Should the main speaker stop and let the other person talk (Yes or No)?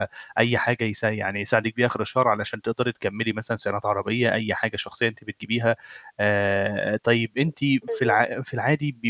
No